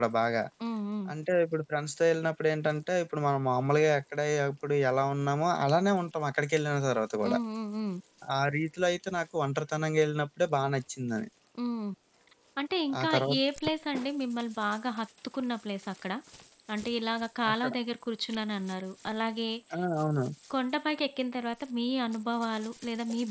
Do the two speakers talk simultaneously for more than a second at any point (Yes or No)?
No